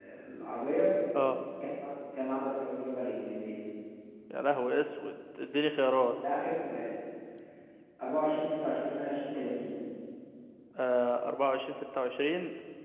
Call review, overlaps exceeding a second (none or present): none